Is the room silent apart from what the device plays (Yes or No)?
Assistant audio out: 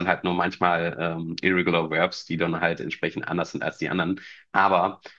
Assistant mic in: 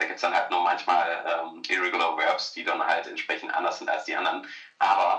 Yes